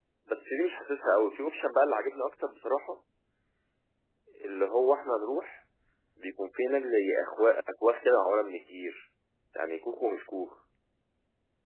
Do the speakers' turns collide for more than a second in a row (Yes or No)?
No